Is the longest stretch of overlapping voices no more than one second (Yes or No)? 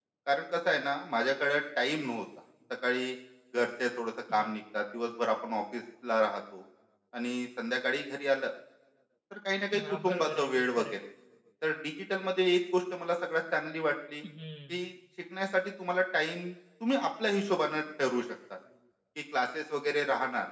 No